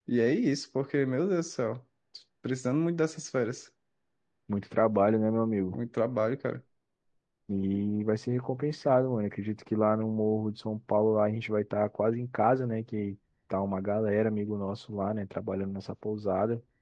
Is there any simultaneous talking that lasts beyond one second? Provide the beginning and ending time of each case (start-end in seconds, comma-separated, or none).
none